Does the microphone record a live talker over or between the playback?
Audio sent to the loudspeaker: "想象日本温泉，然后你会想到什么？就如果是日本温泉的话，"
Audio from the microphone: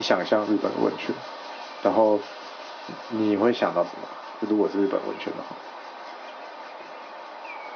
No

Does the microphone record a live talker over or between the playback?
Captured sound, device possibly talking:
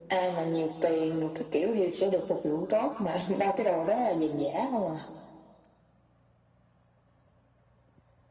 No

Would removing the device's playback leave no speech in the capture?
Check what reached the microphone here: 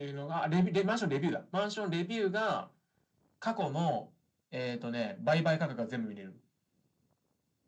Yes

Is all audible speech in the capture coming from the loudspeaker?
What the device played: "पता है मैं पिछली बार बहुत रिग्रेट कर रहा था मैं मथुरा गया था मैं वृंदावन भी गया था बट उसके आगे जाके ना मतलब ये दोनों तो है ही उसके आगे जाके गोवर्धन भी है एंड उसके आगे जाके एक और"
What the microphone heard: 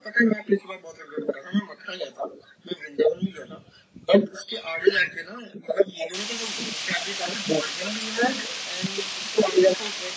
Yes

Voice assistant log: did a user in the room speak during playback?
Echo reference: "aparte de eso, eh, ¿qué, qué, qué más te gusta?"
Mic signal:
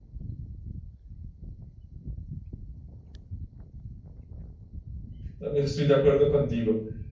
Yes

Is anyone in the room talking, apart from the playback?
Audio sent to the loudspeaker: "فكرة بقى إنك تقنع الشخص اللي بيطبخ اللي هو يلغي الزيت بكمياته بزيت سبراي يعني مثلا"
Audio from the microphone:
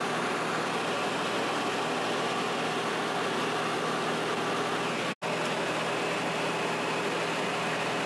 No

